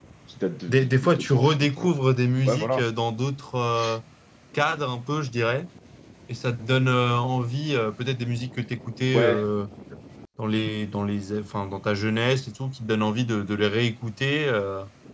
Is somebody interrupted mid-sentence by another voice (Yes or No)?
Yes